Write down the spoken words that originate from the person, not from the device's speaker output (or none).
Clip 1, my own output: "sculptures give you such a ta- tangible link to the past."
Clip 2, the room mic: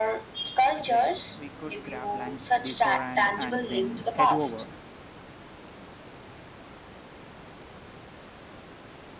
Great. We could grab lunch beforehand and then head over.